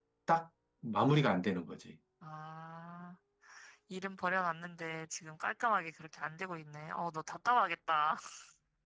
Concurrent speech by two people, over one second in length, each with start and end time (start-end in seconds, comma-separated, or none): none